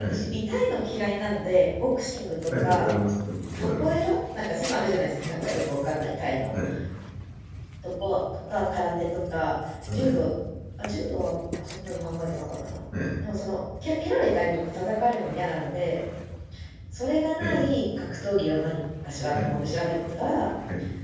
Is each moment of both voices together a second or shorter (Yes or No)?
Yes